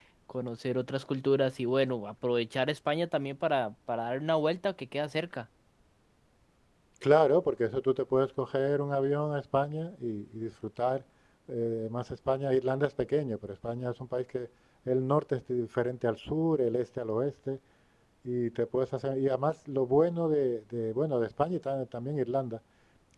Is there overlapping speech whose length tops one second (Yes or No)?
No